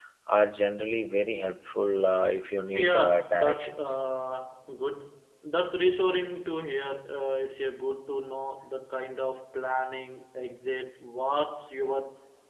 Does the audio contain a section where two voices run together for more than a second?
Yes, from 2.7 s

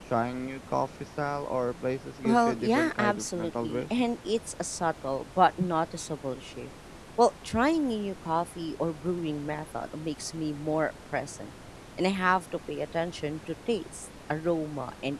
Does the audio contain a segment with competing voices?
Yes, from 2.2 s

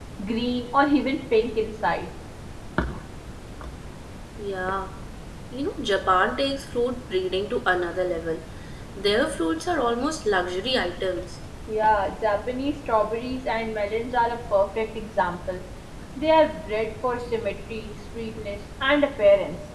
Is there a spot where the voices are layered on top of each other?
No

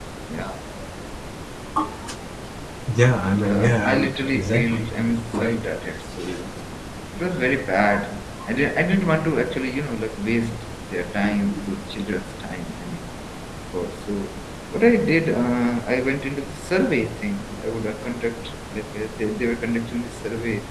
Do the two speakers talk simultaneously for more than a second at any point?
Yes, from 3.2 s

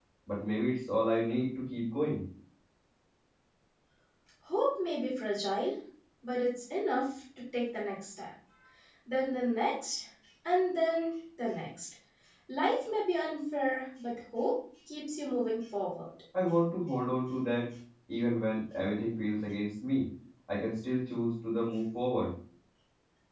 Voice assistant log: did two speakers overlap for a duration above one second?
No

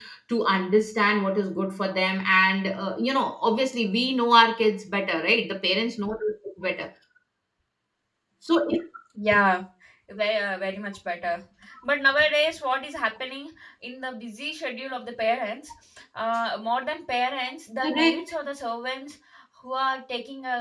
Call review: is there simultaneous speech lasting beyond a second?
No

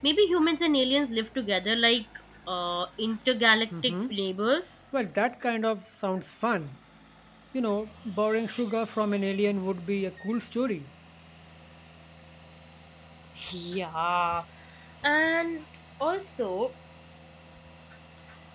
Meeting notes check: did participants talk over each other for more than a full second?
No

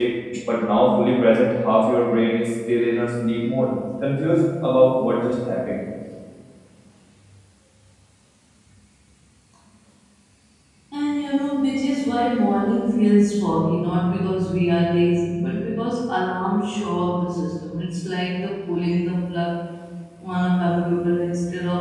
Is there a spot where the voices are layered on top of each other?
No

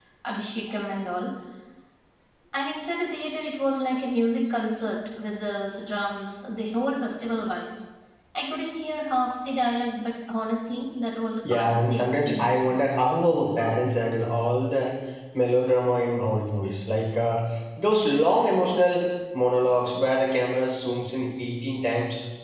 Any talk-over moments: Yes, from 11.4 s

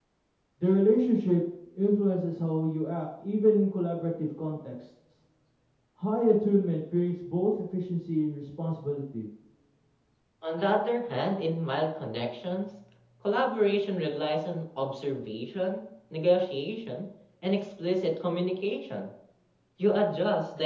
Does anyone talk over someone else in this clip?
No

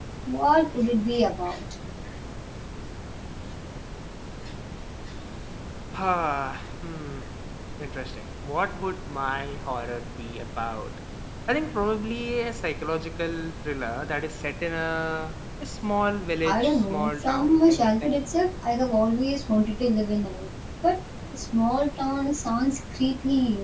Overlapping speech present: Yes, from 16.4 s

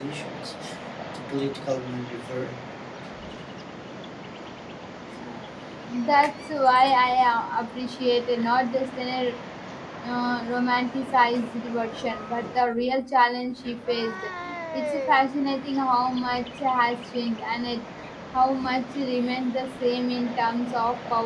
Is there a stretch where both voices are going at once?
No

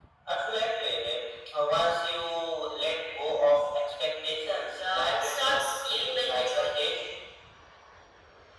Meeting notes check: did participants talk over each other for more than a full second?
Yes, from 4.7 s

